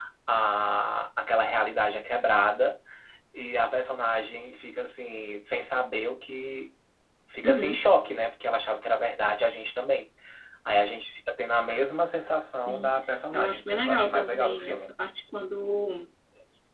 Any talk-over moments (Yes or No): Yes